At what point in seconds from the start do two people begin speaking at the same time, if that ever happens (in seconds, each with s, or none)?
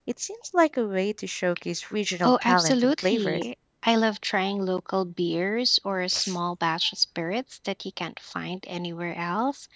2.2 s